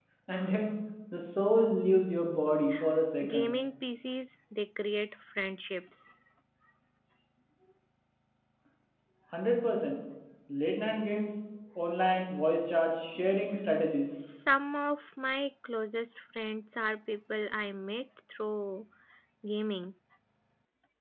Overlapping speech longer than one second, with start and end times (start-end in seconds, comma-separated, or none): none